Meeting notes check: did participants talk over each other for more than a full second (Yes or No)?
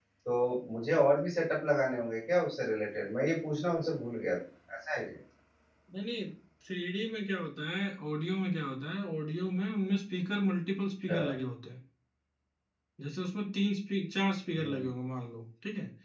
No